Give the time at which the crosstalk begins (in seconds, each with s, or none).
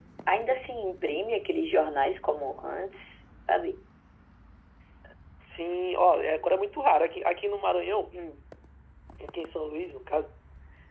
none